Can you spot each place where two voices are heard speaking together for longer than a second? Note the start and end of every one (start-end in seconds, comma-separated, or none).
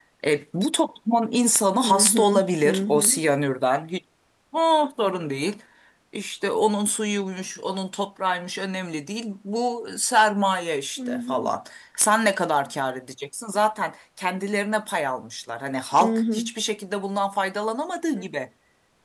1.8-3.2